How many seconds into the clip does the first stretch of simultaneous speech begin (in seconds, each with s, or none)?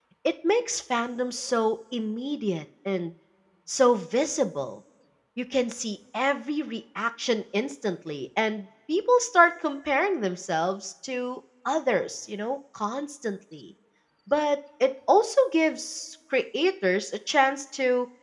none